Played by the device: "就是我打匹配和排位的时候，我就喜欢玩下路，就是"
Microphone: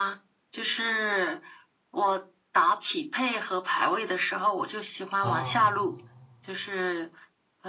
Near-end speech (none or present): present